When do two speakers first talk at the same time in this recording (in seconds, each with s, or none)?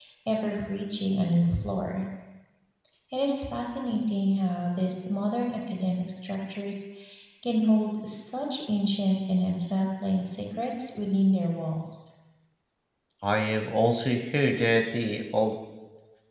none